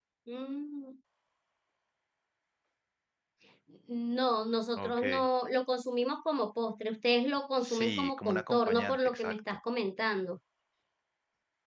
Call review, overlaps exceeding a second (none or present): present